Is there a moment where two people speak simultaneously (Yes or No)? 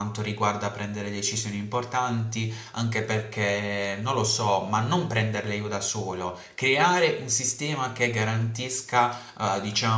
No